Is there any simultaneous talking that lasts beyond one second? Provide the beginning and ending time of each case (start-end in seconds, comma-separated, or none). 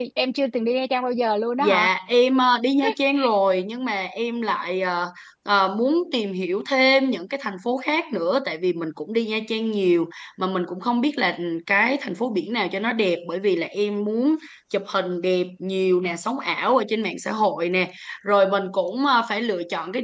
none